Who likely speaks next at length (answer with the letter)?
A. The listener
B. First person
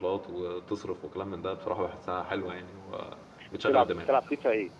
A